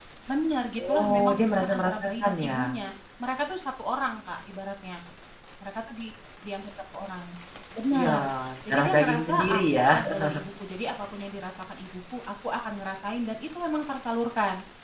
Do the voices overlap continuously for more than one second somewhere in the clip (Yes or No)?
Yes